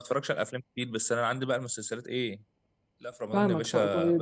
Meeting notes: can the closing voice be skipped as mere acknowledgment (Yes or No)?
No